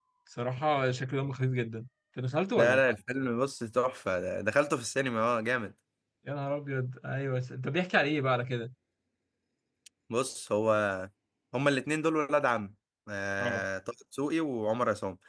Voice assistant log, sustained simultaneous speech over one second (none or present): none